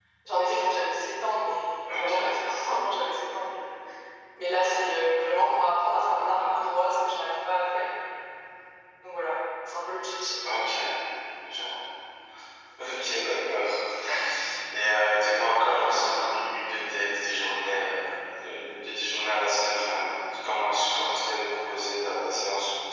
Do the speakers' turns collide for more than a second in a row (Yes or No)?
No